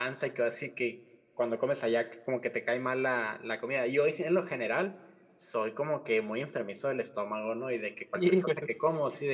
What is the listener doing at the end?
listening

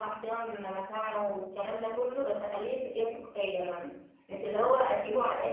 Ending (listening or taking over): listening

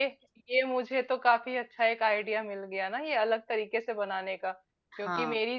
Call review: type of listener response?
listening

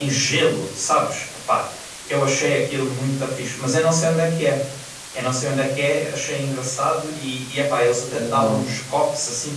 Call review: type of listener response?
listening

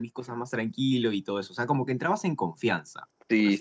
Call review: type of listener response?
taking over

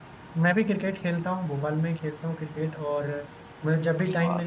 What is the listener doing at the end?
listening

